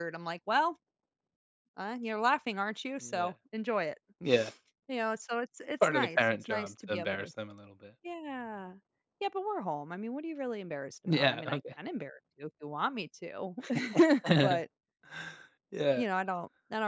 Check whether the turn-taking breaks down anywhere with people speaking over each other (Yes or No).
Yes